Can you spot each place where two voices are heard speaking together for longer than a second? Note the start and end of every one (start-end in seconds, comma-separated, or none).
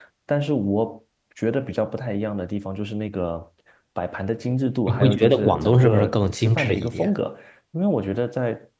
4.9-7.1